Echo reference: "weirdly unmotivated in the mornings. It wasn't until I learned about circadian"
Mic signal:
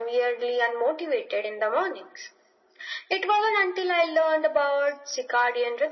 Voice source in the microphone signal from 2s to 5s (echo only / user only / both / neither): echo only